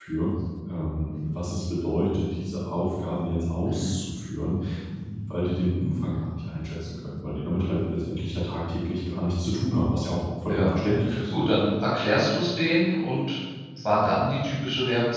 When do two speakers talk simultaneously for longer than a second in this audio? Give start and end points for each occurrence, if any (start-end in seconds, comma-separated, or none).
none